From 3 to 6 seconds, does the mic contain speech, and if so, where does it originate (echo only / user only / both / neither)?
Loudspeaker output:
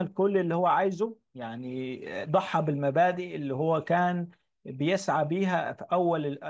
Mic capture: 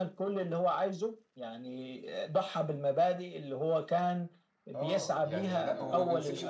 both